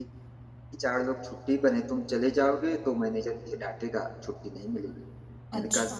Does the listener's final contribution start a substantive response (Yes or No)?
No